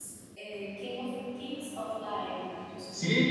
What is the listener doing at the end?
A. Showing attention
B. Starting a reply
B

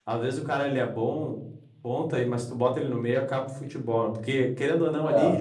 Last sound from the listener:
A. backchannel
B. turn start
A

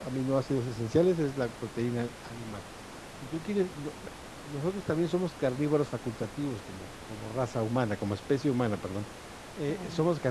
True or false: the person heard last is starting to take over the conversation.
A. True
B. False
B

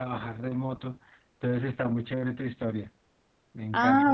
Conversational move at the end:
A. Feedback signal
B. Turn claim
B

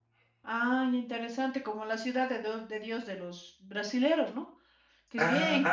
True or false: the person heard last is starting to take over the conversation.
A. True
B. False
B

